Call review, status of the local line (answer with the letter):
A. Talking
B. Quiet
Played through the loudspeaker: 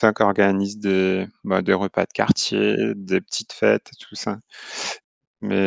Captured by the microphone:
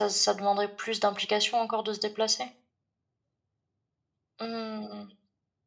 A